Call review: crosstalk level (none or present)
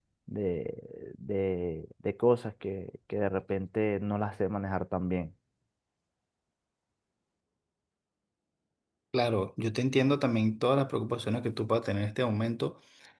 none